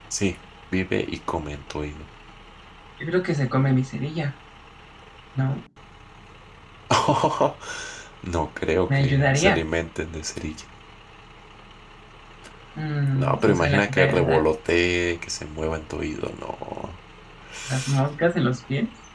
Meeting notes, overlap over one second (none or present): present